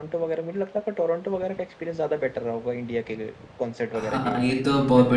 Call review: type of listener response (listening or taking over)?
taking over